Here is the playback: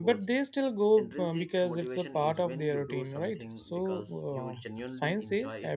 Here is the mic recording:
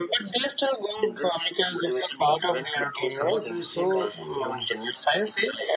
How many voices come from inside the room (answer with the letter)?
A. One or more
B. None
A